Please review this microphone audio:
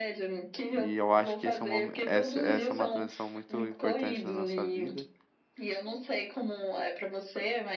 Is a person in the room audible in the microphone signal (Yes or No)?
Yes